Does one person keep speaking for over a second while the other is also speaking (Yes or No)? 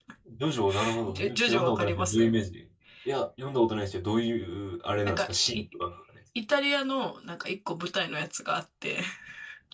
Yes